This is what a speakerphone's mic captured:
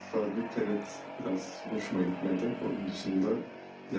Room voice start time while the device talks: none

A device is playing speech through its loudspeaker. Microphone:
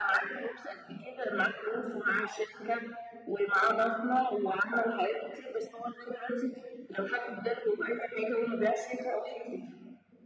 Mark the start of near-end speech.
none

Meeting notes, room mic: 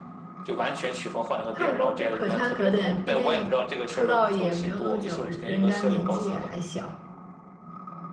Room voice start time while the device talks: 2 s

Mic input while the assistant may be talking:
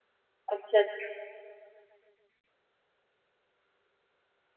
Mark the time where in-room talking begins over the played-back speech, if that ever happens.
1 s

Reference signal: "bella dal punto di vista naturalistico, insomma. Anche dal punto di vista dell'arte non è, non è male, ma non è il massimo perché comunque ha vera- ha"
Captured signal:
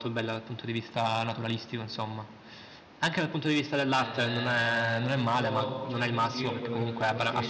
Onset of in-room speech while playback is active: 4 s

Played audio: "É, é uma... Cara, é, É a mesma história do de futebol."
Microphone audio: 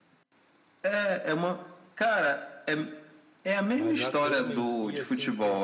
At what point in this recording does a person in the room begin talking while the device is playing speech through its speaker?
4 s

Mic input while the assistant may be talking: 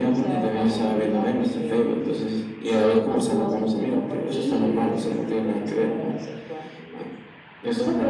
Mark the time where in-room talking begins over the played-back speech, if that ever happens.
none

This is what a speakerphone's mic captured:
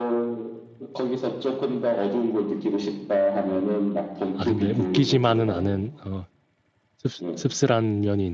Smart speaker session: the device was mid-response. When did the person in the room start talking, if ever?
4 s

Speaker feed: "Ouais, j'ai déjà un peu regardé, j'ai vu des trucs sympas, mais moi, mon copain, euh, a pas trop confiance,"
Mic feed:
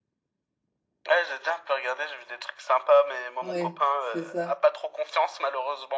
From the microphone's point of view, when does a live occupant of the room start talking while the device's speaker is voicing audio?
3 s

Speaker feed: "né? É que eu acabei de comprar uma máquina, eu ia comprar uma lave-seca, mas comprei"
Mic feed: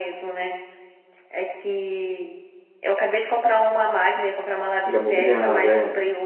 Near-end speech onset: 5 s

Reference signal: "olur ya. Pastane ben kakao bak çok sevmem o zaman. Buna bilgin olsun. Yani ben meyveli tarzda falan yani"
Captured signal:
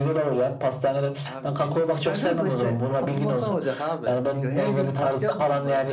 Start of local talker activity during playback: 1 s

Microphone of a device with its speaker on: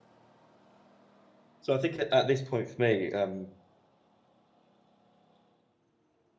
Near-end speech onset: 2 s

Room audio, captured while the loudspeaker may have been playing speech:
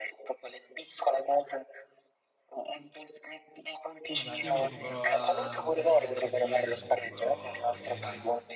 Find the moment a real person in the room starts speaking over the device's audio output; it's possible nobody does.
4 s

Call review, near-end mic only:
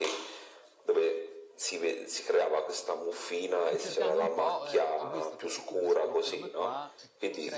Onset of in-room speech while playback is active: 4 s

